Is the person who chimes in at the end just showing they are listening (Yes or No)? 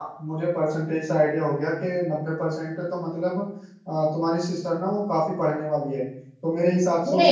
No